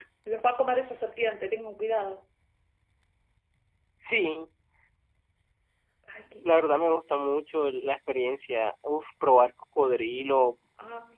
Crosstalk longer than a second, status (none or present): none